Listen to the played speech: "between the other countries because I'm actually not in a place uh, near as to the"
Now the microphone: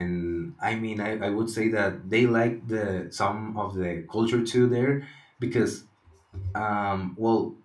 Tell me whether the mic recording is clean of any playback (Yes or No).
Yes